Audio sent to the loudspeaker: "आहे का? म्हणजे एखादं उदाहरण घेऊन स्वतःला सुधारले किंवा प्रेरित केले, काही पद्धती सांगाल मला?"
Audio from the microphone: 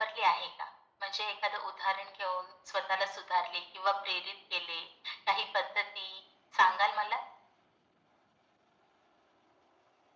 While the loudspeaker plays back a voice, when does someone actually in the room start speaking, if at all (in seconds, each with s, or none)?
none